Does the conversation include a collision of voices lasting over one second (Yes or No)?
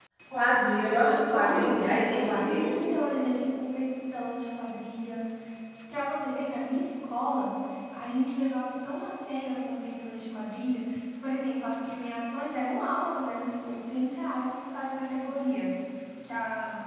Yes